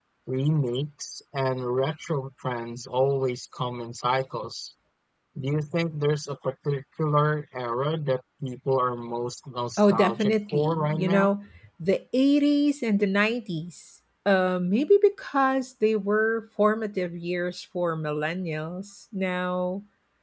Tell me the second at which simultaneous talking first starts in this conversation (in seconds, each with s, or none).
9.8 s